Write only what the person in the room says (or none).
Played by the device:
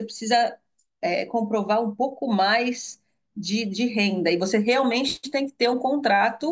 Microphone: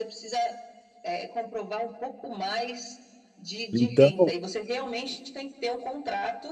Então,